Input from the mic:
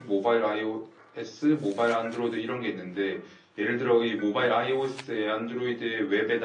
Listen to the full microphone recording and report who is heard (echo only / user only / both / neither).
user only